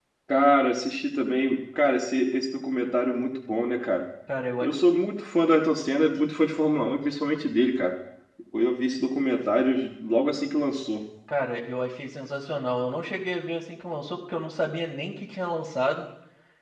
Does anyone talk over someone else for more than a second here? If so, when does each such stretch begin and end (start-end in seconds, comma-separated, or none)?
none